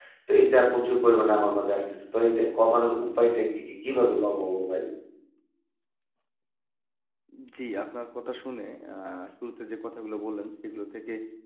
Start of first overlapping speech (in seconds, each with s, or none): none